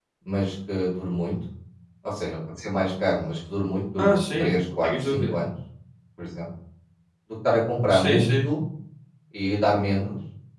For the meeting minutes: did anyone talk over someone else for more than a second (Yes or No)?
Yes